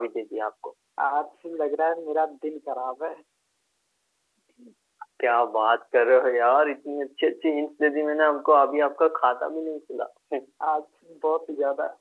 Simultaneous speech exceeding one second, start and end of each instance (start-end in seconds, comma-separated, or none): none